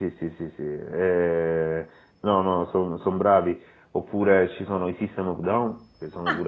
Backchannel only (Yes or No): Yes